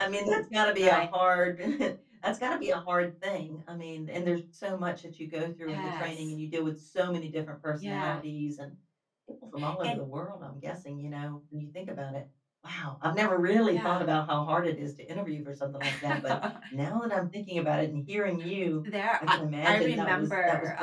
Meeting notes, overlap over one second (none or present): present